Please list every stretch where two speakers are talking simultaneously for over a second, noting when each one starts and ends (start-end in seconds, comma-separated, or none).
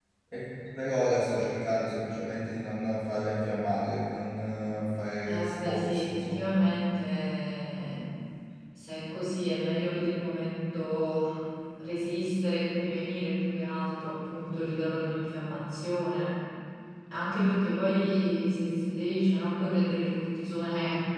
5.2-6.5